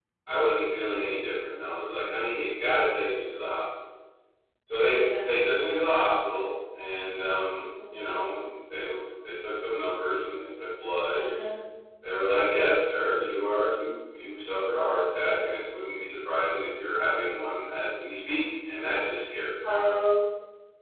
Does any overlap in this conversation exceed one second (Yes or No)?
No